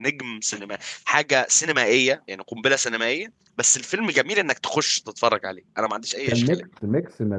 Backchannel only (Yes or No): No